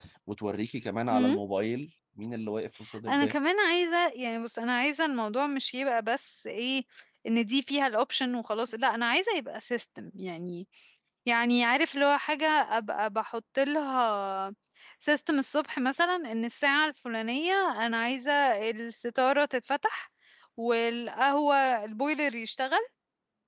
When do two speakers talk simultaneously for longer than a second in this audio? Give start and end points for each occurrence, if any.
none

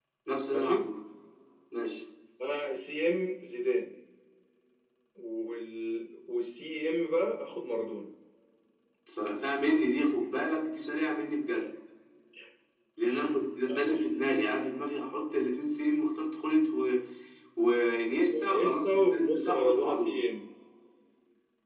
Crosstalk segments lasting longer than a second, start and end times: 18.2-20.1

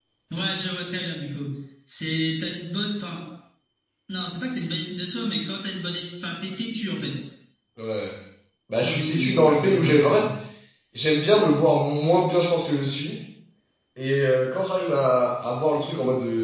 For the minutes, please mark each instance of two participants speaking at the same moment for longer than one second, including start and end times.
8.8-10.2

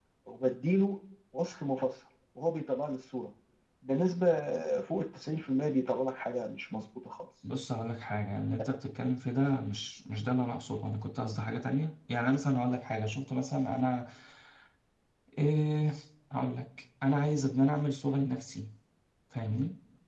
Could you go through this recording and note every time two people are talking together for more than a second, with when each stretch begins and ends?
none

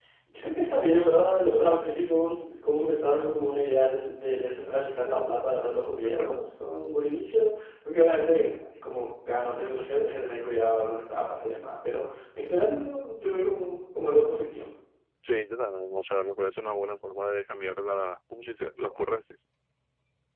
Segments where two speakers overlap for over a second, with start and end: none

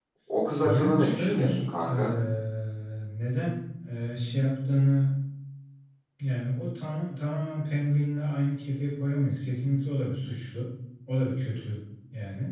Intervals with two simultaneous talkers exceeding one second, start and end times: 0.6-1.9

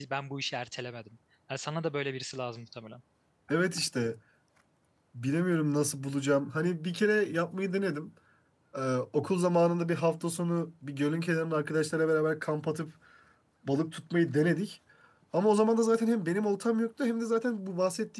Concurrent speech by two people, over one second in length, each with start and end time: none

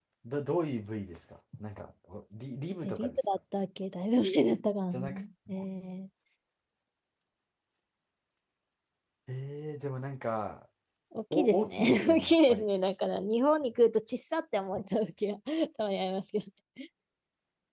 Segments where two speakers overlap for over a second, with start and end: 11.3-12.6

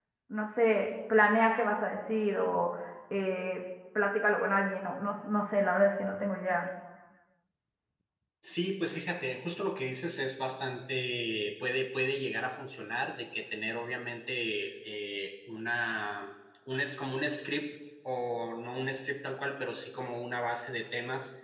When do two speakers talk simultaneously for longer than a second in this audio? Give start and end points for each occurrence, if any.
none

